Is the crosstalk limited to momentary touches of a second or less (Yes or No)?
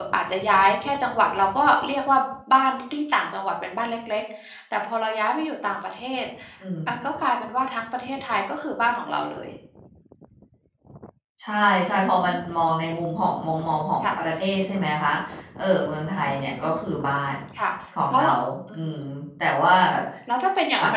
Yes